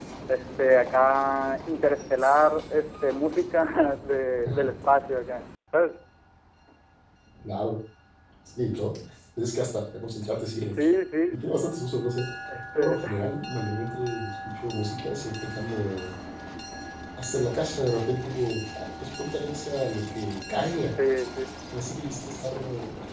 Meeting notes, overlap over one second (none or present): none